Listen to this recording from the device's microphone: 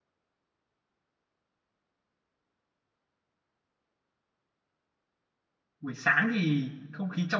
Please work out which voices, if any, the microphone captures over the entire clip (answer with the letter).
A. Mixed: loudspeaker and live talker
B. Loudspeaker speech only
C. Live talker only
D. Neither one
C